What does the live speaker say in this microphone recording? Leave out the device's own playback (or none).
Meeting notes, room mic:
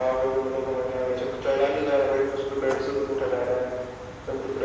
none